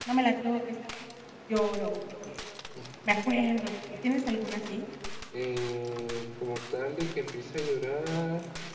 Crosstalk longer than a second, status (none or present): none